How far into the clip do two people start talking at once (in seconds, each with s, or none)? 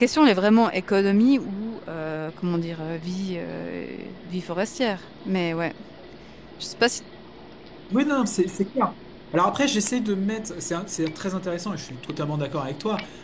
none